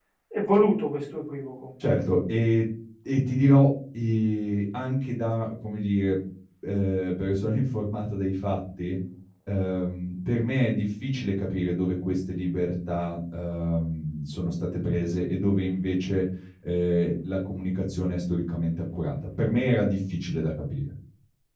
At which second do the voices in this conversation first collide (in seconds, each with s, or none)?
none